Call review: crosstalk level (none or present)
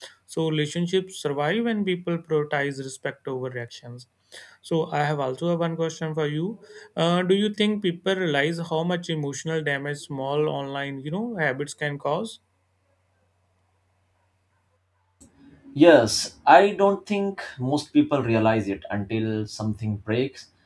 none